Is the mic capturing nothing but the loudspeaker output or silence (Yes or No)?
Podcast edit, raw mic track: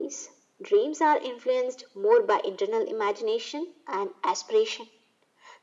Yes